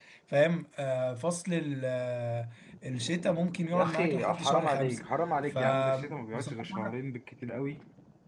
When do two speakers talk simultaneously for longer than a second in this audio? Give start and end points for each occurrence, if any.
3.7-5.0, 5.5-6.9

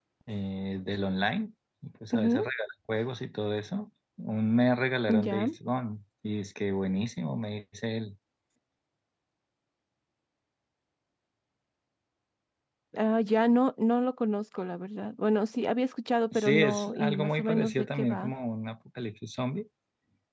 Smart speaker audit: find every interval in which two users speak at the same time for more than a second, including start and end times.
16.3-18.3

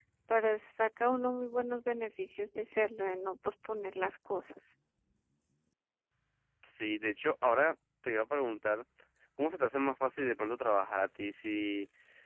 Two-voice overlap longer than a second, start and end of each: none

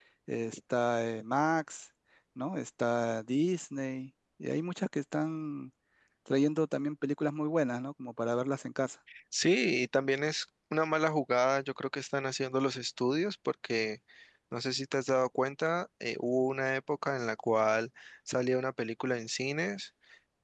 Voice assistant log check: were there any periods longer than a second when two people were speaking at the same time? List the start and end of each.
none

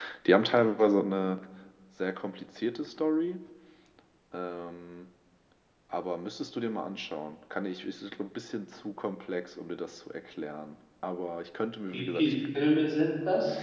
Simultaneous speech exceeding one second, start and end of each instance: none

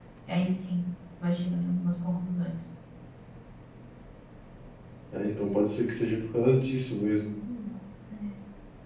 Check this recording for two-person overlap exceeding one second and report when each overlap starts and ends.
none

